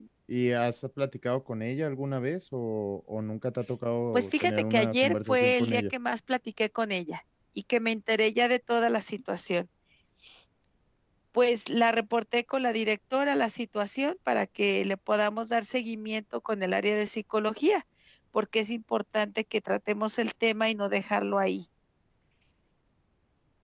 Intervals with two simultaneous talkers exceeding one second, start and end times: 4.1-5.9

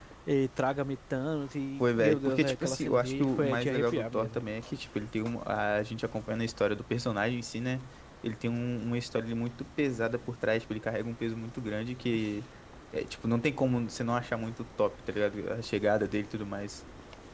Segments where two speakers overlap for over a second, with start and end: 1.8-4.4

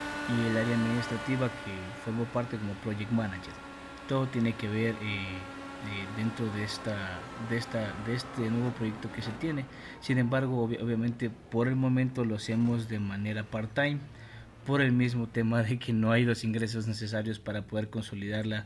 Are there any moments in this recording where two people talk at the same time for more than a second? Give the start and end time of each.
none

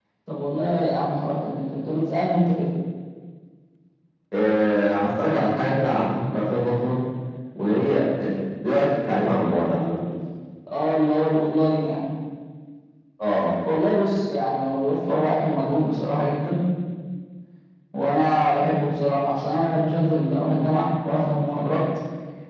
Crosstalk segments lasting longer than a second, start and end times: none

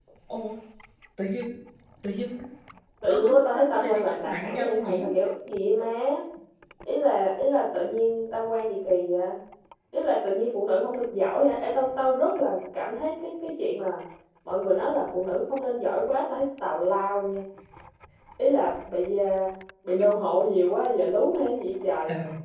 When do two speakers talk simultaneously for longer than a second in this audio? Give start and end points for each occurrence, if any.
3.1-5.1

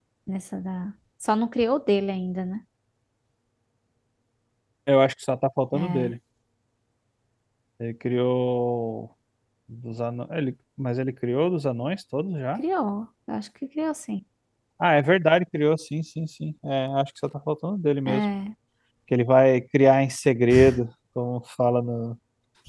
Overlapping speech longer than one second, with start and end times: none

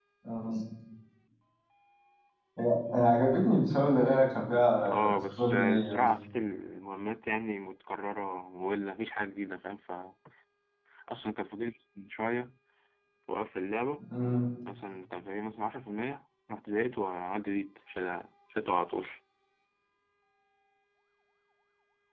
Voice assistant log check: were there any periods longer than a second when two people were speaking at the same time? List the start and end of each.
4.8-6.1

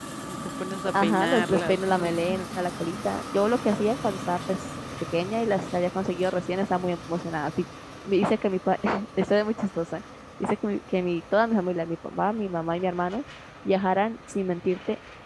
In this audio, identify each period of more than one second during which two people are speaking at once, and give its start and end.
1.0-2.2

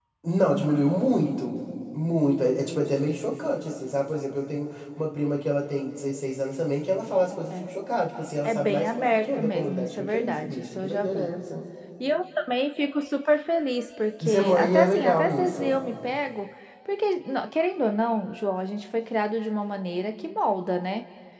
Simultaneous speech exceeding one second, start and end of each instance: 8.4-11.3, 14.2-15.7

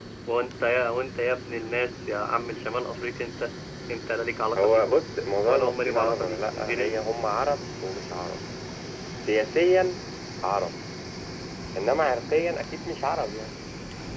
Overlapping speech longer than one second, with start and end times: 5.5-7.0

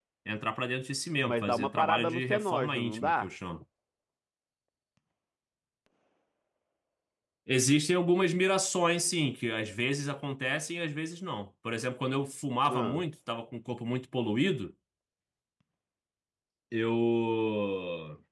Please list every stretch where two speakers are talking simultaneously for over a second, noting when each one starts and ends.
1.2-3.3

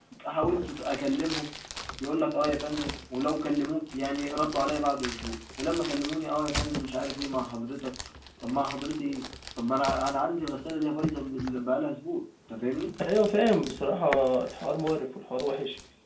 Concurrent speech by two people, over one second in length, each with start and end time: none

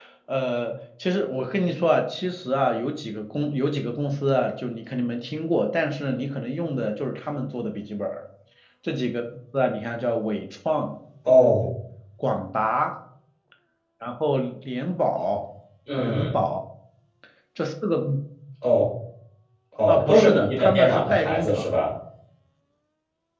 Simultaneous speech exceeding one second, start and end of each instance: 19.9-21.8

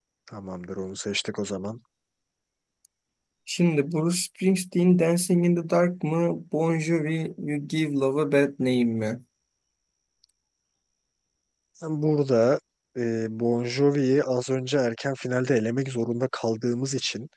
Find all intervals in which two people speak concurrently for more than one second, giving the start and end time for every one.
none

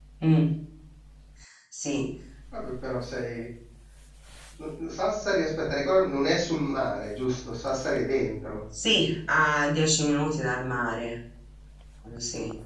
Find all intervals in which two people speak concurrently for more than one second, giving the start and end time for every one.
none

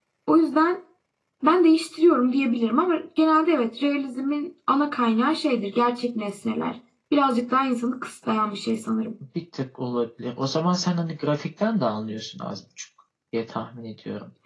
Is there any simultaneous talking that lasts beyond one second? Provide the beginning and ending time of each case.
none

